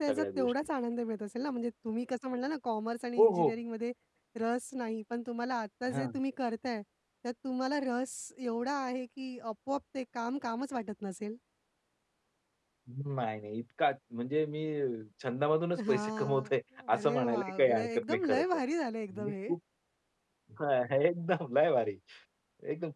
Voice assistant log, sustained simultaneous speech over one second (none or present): present